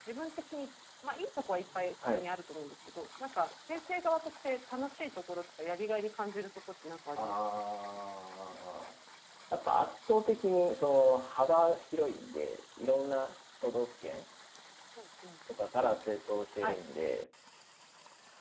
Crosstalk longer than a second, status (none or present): none